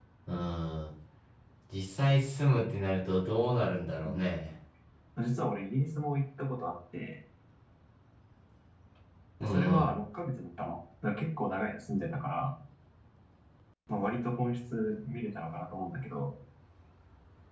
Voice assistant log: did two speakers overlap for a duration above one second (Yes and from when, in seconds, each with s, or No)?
No